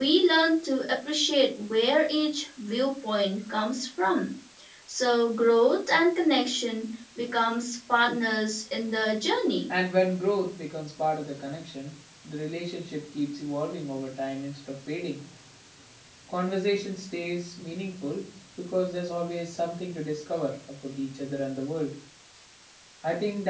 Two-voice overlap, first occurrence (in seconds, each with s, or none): none